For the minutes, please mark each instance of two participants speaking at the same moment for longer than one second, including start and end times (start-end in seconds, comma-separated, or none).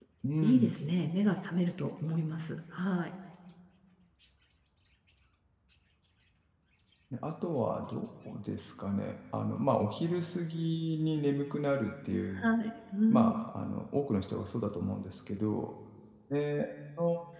none